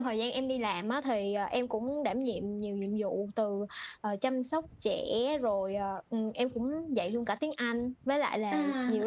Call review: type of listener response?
listening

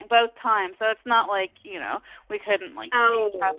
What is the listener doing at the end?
listening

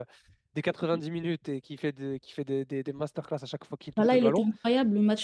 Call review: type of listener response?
taking over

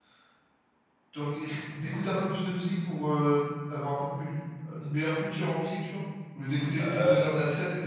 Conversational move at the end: listening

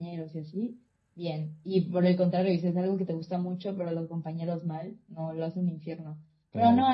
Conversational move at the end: listening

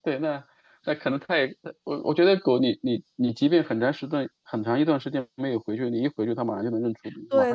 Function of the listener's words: taking over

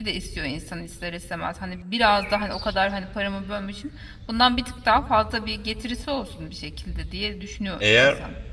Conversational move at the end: taking over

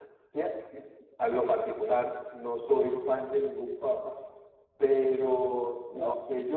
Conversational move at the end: listening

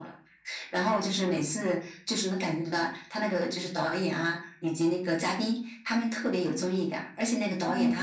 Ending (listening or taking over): listening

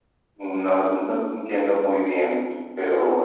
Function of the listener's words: taking over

